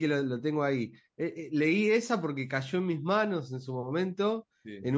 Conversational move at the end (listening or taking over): listening